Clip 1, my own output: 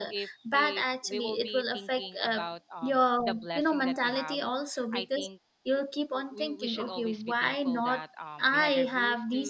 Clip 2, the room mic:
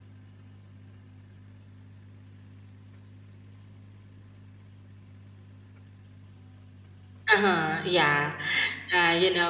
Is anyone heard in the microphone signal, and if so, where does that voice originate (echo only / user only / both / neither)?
user only